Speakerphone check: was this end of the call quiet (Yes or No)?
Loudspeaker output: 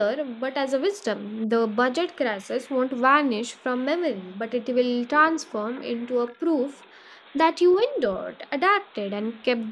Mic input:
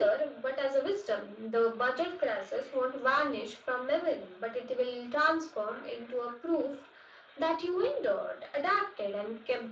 Yes